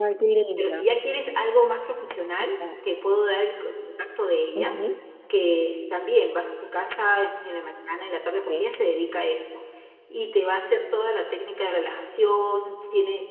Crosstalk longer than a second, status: none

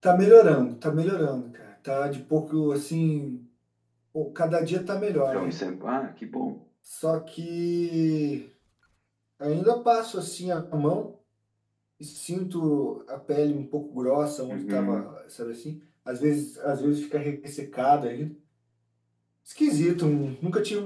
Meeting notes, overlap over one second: none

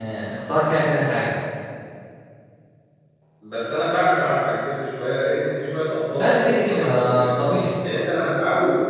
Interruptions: present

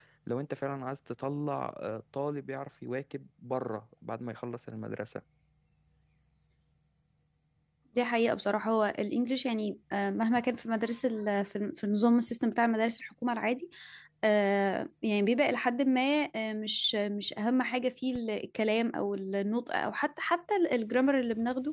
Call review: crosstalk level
none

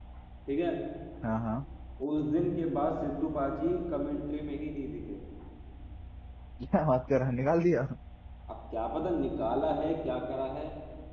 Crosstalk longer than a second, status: none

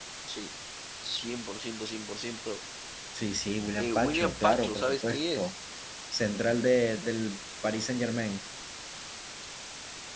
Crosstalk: present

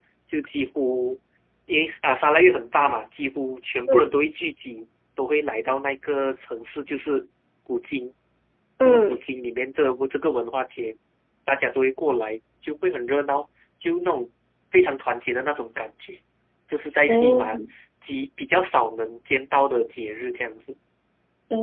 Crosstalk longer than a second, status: none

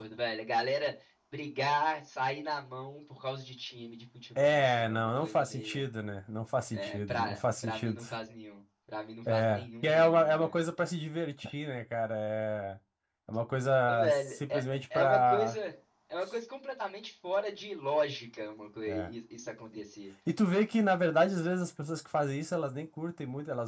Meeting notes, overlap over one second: present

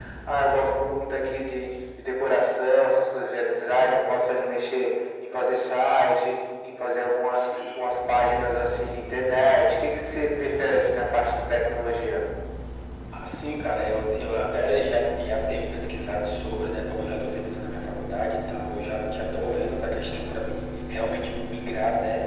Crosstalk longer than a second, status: none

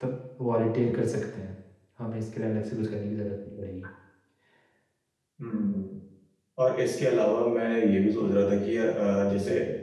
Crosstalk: none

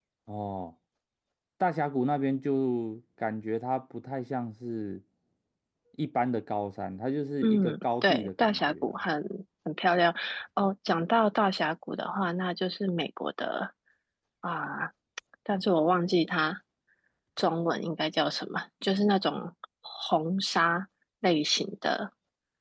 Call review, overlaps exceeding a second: present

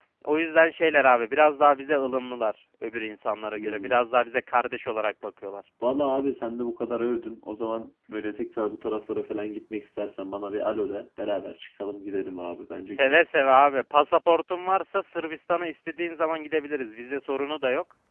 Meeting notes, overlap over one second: none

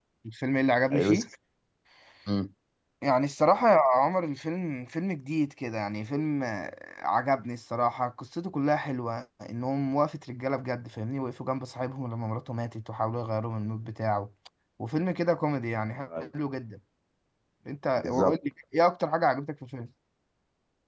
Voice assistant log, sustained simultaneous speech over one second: none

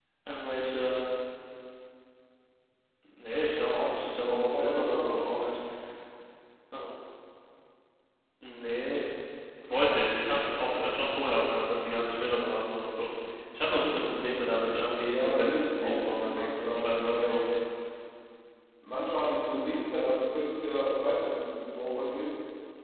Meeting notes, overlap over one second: present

